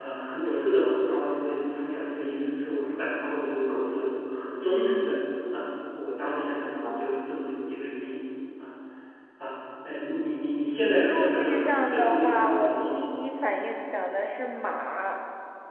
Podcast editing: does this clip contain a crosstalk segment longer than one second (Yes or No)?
Yes